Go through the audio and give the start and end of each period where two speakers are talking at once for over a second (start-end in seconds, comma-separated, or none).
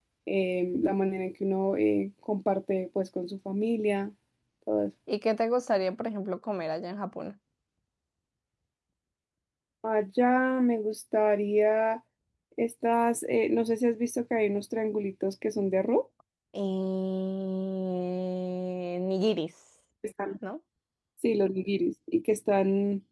none